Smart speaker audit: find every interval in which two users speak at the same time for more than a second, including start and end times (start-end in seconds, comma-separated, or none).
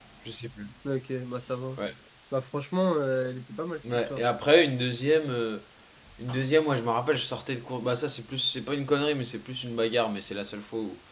none